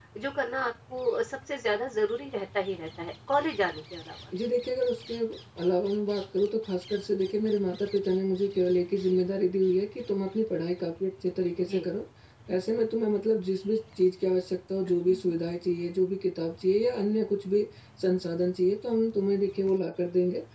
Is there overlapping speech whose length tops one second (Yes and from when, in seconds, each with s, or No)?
No